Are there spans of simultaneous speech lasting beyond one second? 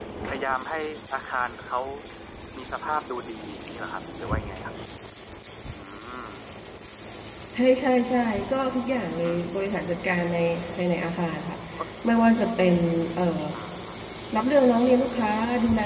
No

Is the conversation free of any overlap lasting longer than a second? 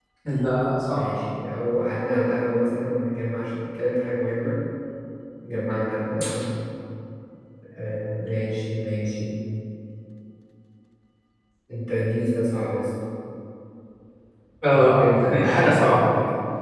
No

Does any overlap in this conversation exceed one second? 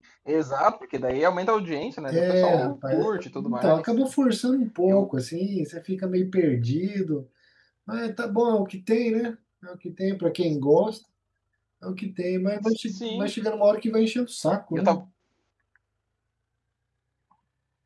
Yes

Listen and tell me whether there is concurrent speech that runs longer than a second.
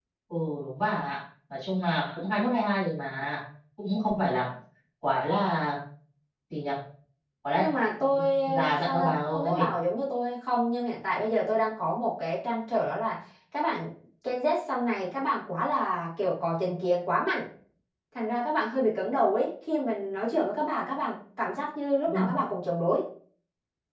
Yes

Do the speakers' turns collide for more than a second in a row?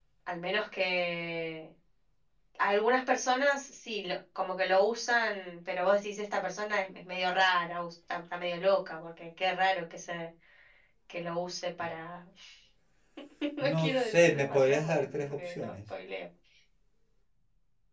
Yes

